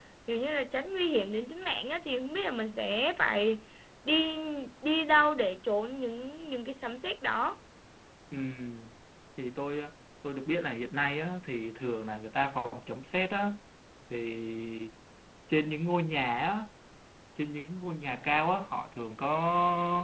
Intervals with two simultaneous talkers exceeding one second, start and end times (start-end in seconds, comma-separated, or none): none